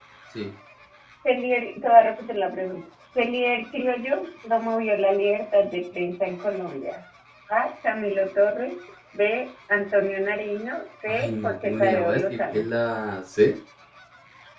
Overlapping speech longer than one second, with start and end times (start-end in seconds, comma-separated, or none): 11.1-12.6